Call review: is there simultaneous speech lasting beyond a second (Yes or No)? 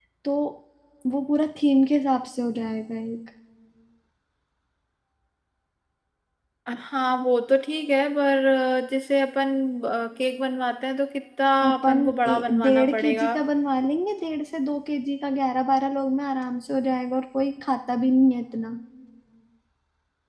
Yes